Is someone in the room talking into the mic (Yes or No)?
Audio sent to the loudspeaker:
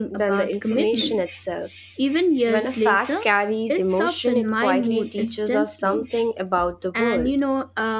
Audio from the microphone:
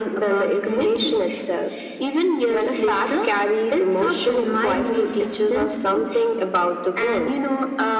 No